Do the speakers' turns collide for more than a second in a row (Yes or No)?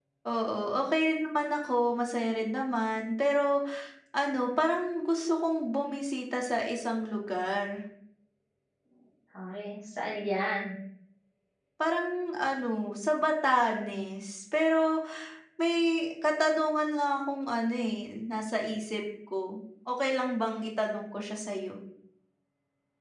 No